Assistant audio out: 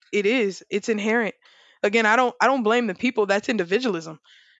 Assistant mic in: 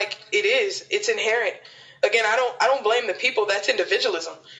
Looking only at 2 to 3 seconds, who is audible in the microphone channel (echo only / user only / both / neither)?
echo only